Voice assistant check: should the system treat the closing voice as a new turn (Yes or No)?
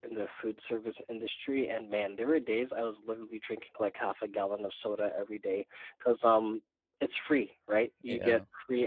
No